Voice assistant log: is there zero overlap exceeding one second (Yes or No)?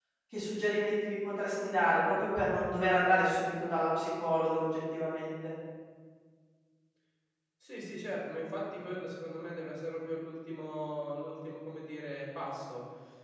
Yes